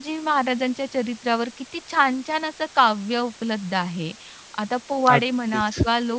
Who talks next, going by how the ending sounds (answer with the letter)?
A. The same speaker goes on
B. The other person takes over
A